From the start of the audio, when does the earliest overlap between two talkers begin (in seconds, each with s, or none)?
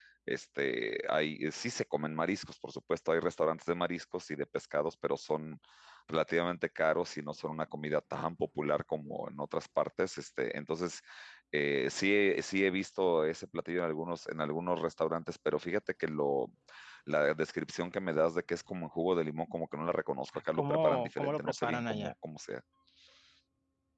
20.5 s